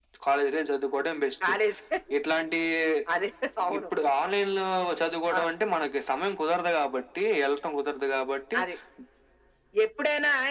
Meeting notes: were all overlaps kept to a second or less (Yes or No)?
Yes